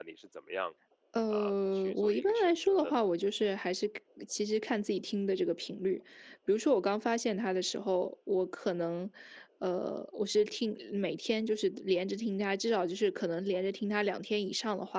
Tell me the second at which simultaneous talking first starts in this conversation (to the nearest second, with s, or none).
1 s